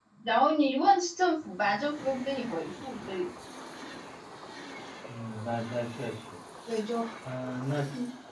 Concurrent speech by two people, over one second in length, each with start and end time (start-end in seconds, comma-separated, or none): none